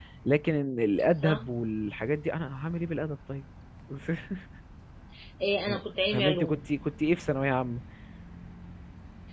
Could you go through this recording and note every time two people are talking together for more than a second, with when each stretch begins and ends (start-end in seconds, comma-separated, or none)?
none